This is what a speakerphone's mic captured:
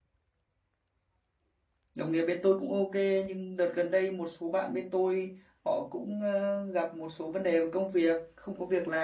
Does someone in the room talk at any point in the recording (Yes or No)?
Yes